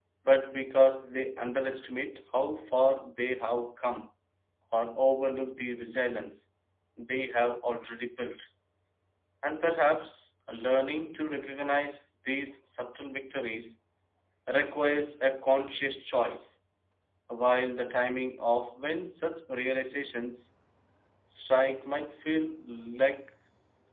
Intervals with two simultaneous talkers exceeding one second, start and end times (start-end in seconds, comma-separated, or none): none